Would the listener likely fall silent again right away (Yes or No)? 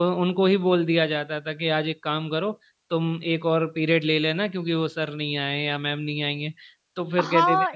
No